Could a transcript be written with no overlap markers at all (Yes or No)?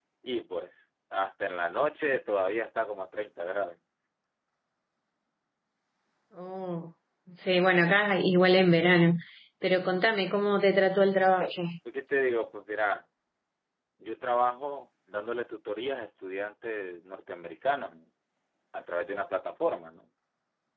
Yes